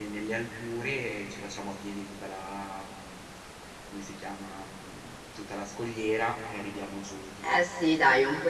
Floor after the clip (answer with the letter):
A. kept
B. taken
B